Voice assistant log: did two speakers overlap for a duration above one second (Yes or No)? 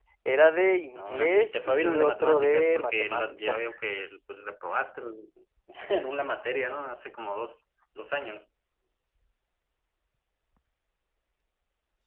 Yes